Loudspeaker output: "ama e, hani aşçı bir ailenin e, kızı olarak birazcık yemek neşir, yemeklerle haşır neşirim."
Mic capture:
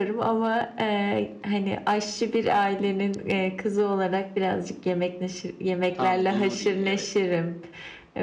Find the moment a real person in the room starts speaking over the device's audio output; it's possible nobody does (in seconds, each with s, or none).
5.9 s